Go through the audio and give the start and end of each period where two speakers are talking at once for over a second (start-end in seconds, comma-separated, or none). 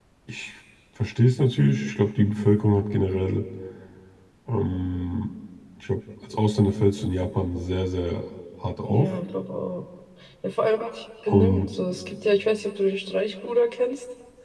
none